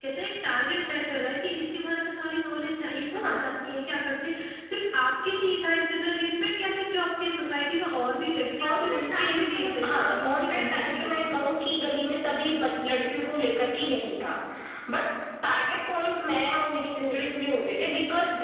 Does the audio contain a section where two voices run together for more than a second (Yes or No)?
Yes